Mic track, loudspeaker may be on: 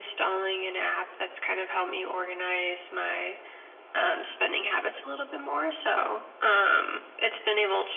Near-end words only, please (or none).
none